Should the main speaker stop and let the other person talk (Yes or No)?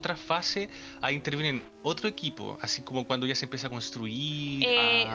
Yes